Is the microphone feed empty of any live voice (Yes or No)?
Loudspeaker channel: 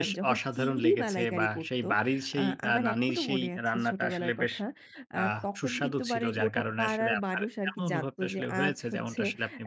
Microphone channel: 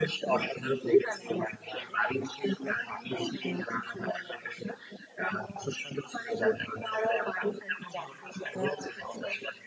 Yes